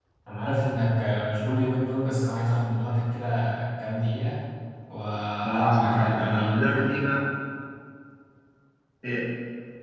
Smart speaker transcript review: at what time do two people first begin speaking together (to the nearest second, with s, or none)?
5 s